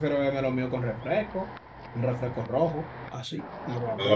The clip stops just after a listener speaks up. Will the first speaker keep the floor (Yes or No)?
No